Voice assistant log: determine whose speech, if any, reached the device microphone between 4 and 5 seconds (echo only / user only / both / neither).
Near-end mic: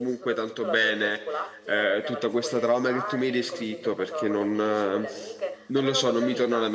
both